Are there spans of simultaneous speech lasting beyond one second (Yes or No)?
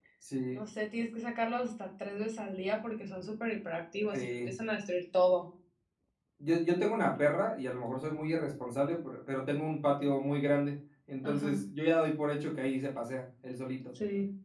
No